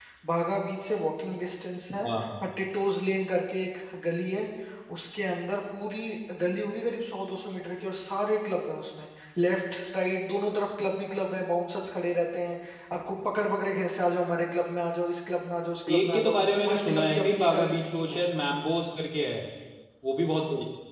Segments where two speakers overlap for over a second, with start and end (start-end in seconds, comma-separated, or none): 15.9-18.2